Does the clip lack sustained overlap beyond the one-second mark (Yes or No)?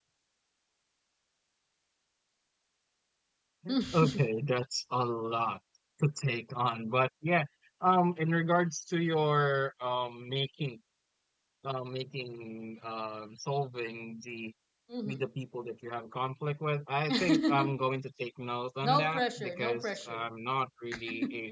No